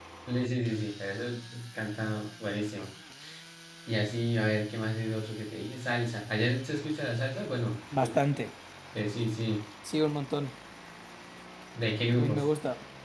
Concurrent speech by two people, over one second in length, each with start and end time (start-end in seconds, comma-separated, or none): none